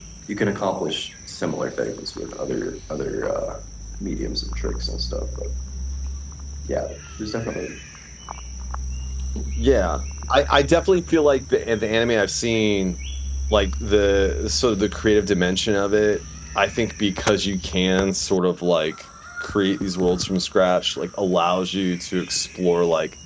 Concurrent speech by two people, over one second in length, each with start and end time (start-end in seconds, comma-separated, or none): none